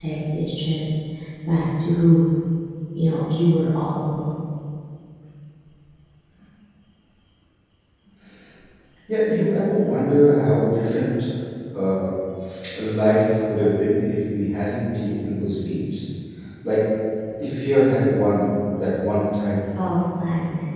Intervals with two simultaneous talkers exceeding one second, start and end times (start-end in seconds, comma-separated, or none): none